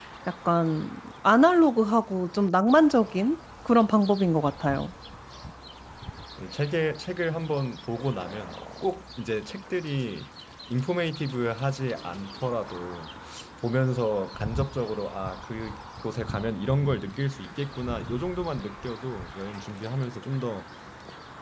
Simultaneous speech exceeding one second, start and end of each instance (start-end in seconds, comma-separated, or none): none